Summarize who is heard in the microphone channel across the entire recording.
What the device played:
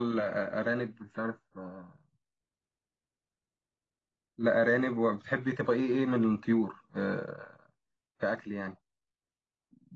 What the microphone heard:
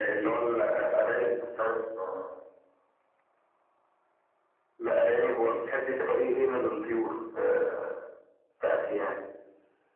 echo only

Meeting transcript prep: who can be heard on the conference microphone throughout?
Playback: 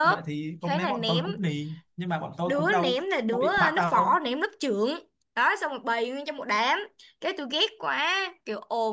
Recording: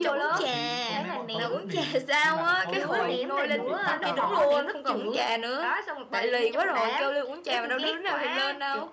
both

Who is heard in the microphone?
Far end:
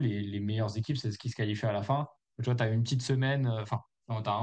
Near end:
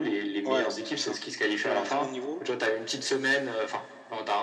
both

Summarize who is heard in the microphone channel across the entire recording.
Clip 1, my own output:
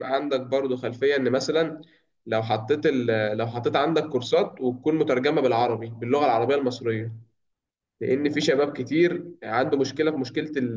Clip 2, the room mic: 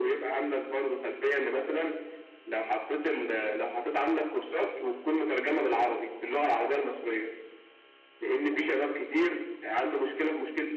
echo only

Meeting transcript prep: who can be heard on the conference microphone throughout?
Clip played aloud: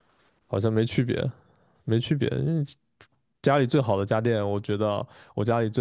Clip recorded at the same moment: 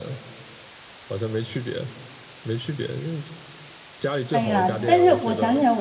both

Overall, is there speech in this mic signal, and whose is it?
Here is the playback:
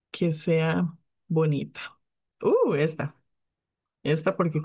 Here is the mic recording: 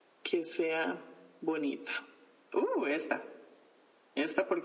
echo only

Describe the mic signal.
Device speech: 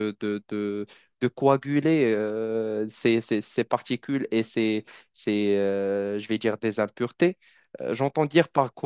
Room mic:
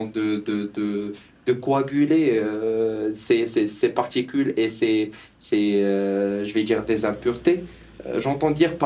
echo only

